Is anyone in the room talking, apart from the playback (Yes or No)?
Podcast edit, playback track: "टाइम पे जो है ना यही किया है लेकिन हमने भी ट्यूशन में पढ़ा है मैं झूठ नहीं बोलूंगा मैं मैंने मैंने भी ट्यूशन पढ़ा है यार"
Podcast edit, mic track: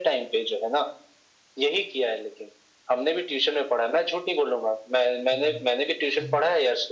Yes